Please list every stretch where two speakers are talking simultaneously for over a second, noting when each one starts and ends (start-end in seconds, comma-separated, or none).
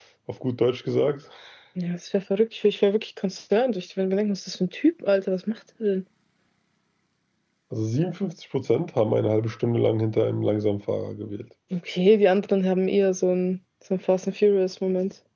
none